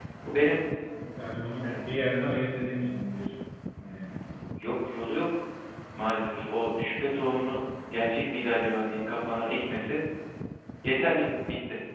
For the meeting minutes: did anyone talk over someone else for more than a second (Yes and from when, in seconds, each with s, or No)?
No